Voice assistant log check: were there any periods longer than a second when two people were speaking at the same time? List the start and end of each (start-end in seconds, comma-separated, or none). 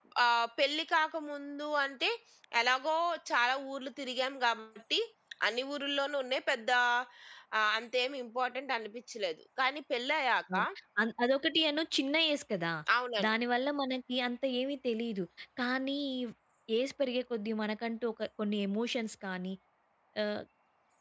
none